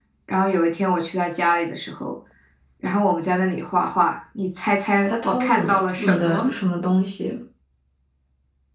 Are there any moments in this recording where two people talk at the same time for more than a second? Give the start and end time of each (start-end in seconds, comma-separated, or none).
5.1-6.5